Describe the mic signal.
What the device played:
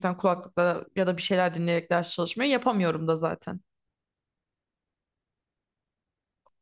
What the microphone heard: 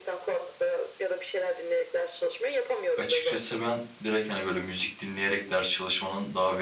both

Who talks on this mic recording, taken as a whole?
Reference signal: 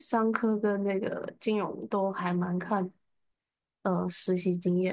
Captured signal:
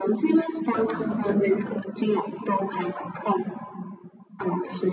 both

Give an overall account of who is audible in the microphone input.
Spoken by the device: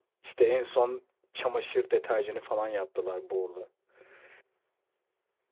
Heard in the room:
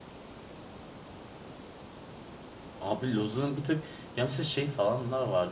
user only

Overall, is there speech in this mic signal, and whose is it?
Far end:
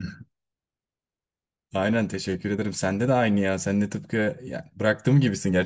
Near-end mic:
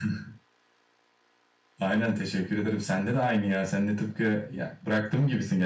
echo only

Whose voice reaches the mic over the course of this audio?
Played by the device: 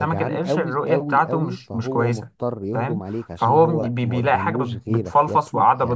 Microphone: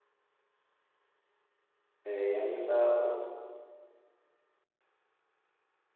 user only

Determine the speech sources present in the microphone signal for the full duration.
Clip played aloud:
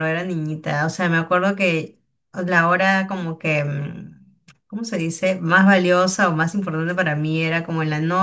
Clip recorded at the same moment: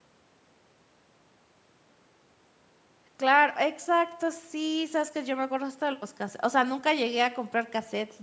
user only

